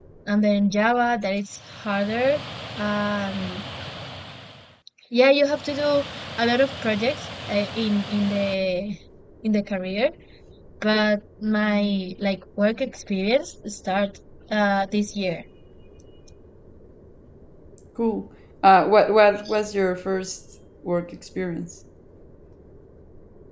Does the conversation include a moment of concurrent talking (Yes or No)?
No